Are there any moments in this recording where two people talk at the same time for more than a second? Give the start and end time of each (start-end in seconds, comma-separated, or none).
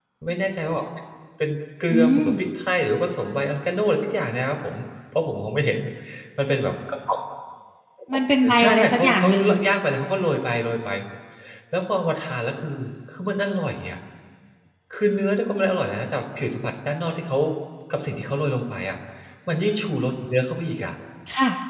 8.1-9.5